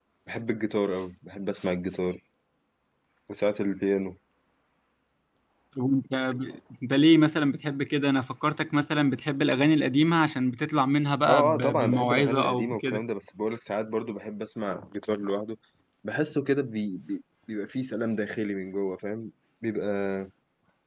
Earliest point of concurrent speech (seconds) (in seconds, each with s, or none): 11.2 s